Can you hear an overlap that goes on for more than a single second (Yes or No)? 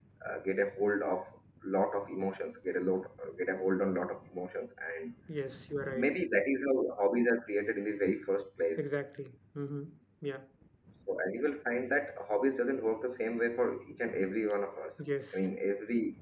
No